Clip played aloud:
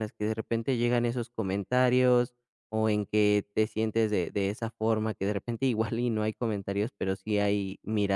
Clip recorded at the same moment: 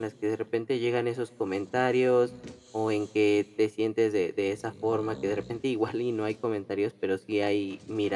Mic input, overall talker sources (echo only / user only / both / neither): echo only